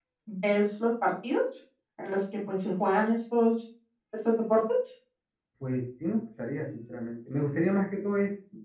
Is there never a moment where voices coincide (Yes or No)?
Yes